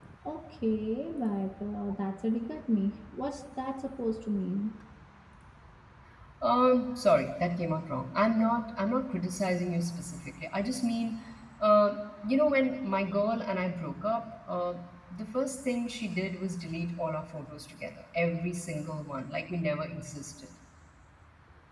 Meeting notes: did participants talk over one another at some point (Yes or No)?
No